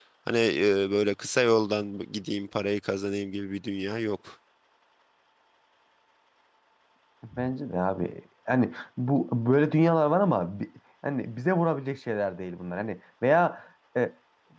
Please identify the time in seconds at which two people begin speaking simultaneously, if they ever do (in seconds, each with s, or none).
none